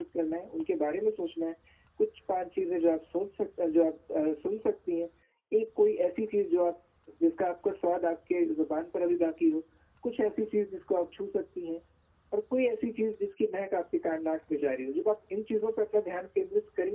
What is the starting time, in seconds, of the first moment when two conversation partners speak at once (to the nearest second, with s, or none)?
none